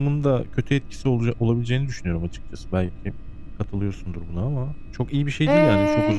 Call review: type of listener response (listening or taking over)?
taking over